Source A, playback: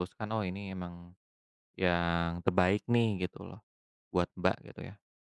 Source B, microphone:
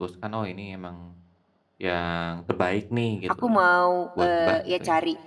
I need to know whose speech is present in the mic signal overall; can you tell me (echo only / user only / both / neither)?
both